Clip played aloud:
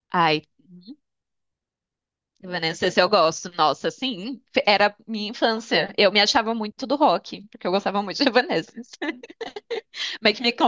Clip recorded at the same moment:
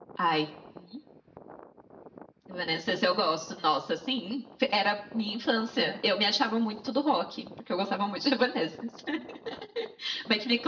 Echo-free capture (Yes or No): No